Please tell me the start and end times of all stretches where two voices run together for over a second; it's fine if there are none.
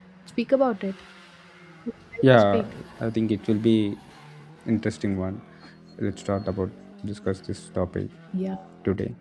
none

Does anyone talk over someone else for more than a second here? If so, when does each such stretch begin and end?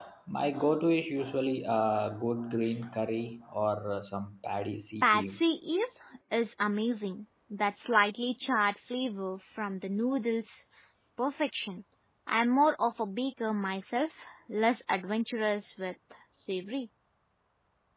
none

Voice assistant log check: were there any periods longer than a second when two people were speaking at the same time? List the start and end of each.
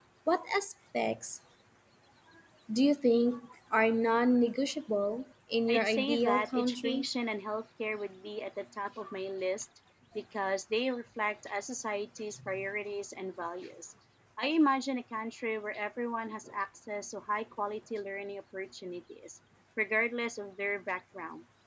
5.7-7.1

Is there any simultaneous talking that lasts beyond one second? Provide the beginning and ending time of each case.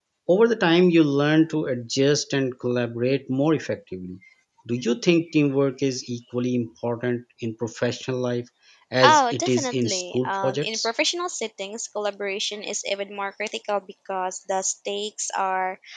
9.0-10.9

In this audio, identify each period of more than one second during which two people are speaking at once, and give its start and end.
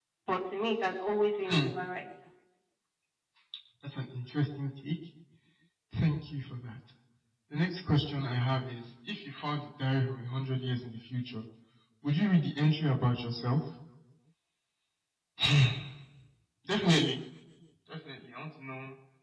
none

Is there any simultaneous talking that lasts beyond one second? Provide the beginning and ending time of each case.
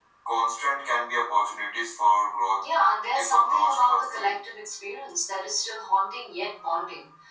3.1-4.4

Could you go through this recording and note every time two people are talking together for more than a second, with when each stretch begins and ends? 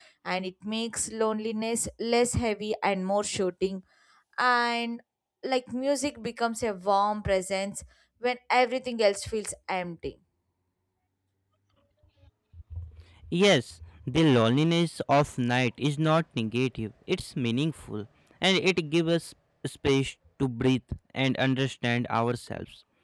none

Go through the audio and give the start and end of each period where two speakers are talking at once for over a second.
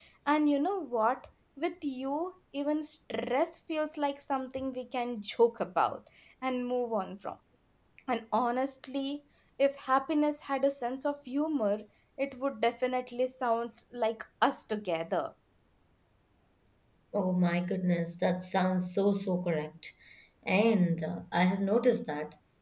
none

